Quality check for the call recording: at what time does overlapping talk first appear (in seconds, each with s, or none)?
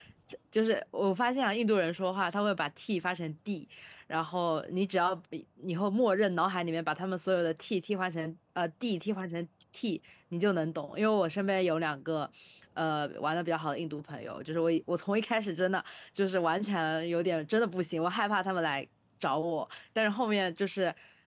none